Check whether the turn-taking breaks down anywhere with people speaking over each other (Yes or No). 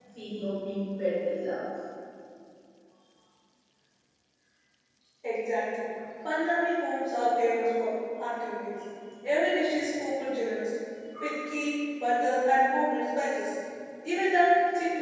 No